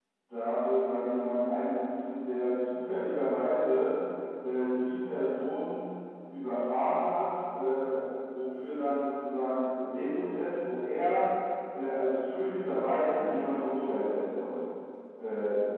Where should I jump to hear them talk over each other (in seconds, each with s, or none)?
none